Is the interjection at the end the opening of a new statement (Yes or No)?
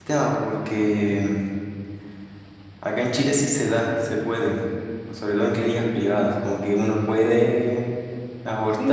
Yes